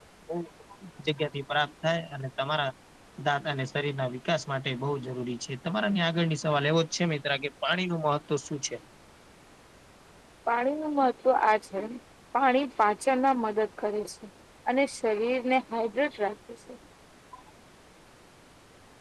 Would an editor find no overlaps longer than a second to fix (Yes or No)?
Yes